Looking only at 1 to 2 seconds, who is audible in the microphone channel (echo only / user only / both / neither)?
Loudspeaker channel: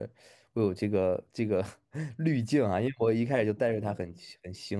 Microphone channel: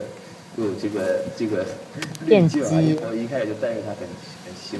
echo only